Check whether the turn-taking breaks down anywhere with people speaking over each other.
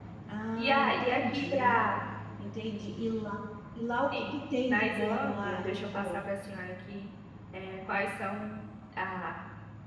Yes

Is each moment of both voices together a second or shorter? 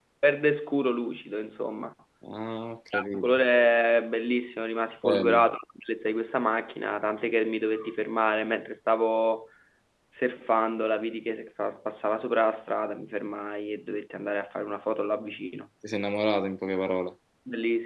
Yes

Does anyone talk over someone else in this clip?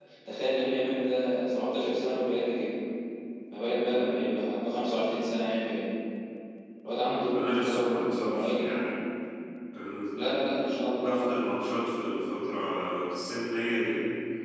Yes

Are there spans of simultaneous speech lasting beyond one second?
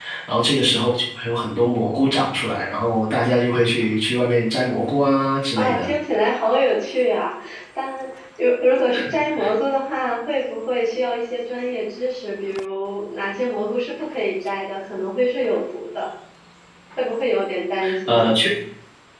No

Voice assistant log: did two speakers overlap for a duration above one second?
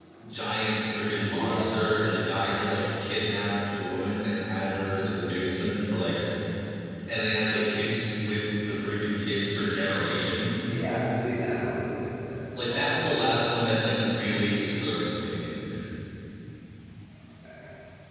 No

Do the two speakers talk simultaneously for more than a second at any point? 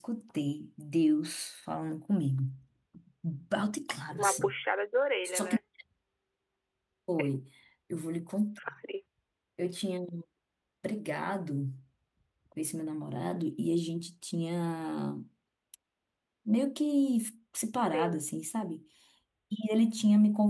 No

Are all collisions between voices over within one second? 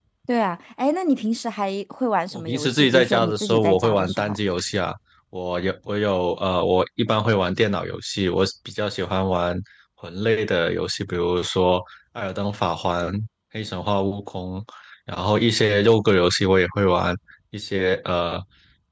No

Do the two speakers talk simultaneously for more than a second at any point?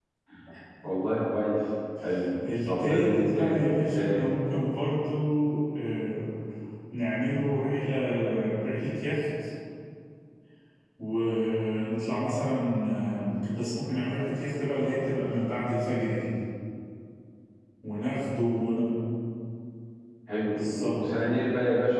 Yes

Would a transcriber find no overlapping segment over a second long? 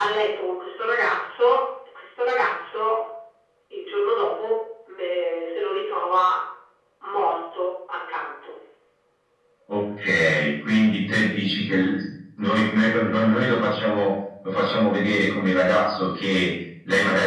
Yes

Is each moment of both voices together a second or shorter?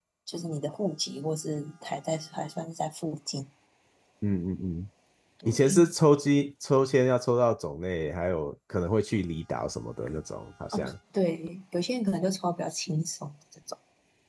Yes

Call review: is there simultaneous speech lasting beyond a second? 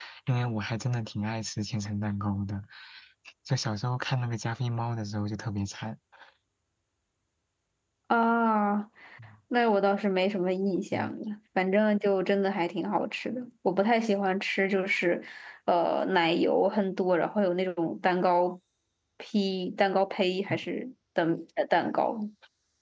No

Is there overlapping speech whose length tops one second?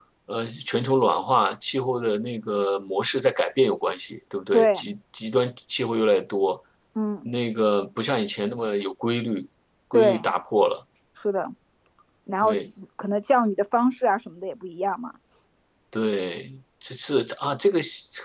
No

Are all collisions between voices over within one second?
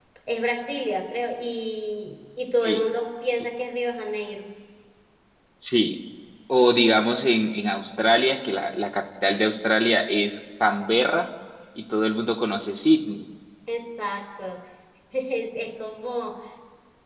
Yes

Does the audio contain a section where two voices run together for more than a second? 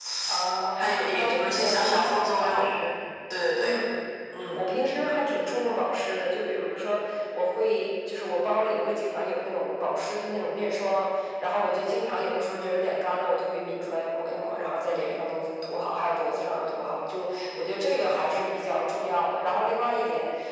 Yes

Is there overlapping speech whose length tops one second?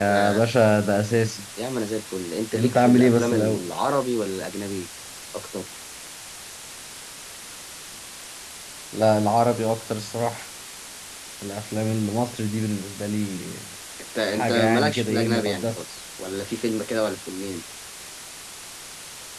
Yes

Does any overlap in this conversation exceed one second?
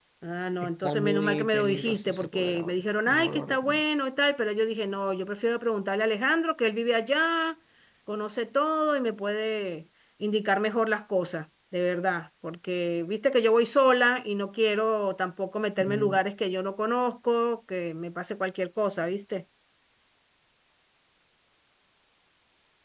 Yes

